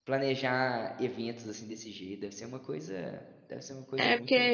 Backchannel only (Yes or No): No